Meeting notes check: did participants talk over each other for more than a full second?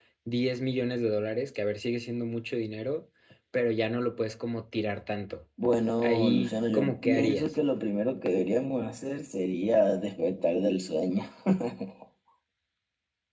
Yes, from 6.0 s

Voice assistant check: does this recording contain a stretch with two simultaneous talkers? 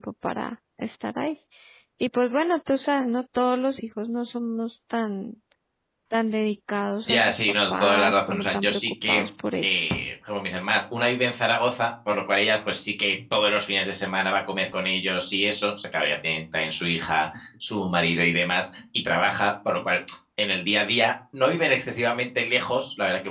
Yes, from 7.1 s

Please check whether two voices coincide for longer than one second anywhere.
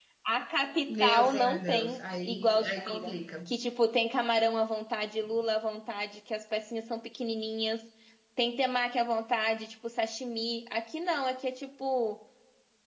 Yes, from 0.9 s

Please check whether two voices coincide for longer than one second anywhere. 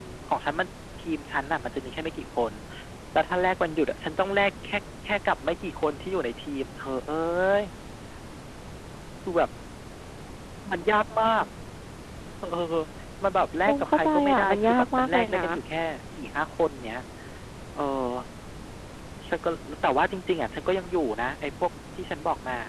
Yes, from 13.7 s

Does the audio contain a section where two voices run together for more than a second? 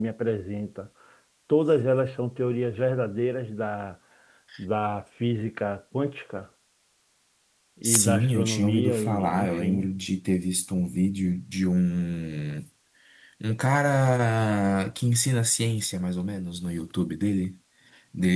Yes, from 7.8 s

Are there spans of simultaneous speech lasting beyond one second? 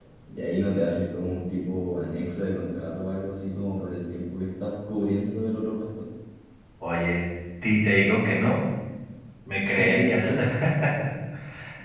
No

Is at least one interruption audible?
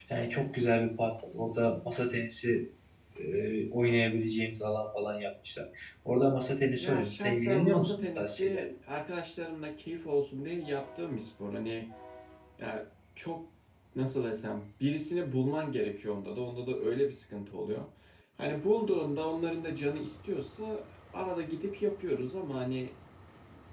Yes, from 6.8 s

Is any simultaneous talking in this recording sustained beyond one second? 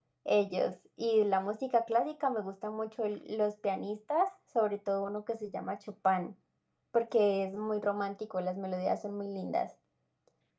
No

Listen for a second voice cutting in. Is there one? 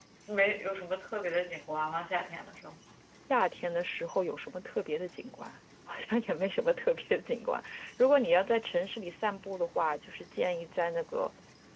No

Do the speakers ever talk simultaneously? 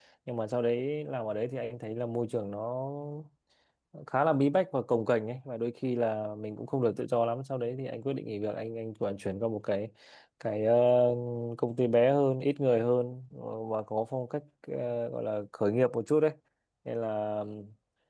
No

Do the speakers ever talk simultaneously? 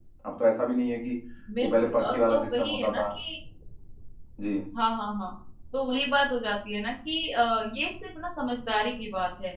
Yes, from 1.6 s

